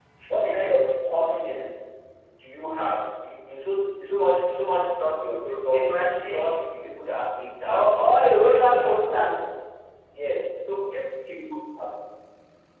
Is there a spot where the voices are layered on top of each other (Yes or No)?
Yes